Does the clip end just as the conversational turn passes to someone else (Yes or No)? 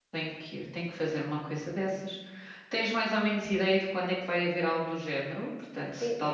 Yes